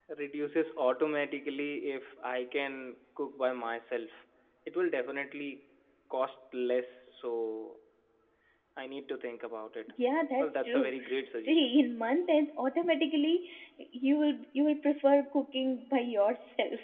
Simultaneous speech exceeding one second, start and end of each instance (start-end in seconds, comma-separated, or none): 10.4-11.7